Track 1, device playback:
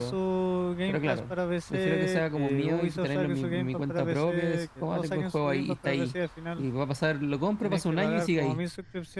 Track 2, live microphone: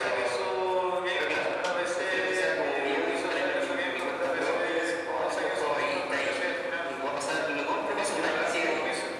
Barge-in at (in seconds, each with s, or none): none